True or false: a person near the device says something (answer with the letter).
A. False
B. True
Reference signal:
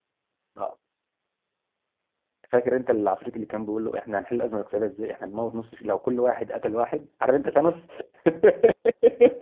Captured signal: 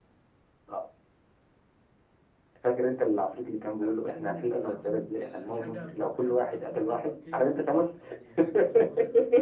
B